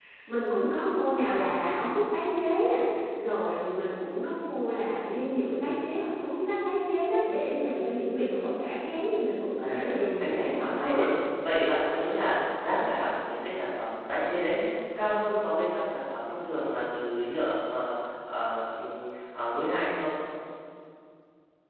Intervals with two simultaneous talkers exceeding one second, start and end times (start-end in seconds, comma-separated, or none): 9.6-11.0